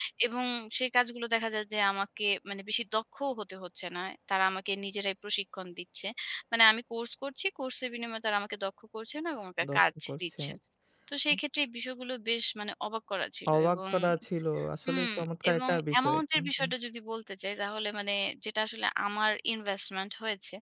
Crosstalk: present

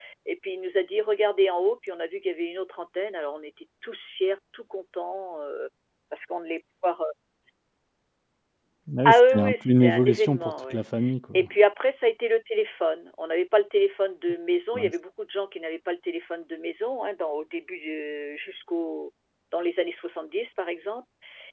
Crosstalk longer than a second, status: present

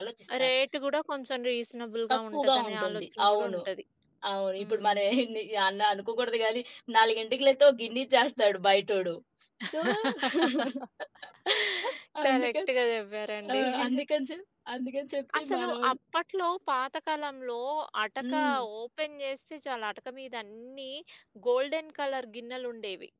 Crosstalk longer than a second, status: present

